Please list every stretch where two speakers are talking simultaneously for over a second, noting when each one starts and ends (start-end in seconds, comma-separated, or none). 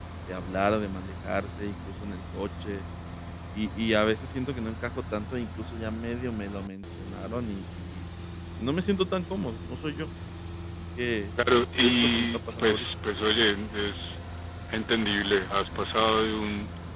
11.6-12.8